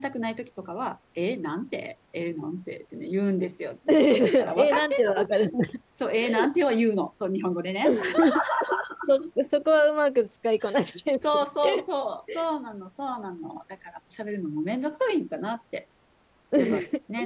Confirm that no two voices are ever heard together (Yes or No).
No